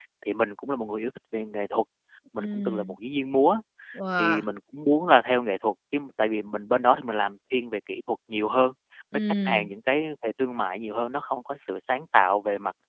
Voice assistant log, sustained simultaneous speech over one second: none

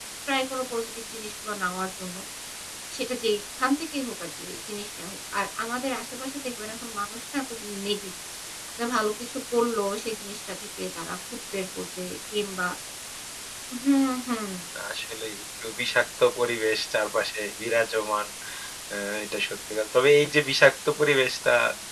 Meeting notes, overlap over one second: none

